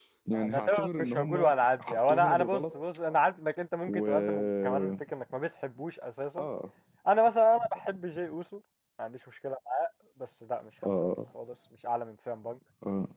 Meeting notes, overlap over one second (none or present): present